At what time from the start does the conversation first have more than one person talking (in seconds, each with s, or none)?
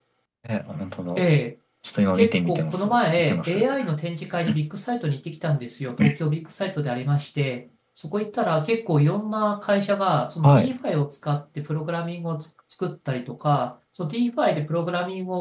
2.2 s